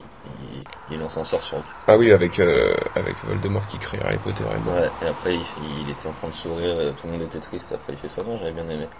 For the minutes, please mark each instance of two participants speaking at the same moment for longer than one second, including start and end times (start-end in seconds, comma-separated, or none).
none